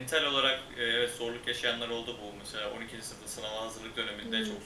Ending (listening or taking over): listening